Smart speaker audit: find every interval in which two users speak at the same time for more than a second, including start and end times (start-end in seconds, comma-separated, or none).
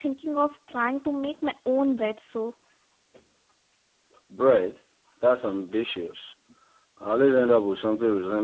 none